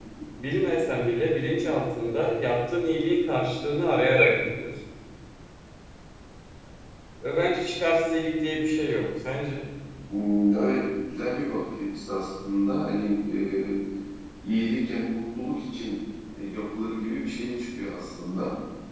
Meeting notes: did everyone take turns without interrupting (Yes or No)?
Yes